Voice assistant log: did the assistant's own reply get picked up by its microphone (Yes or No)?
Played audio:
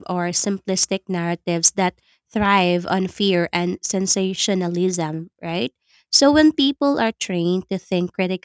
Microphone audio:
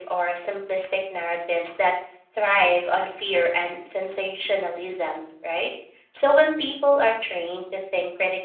Yes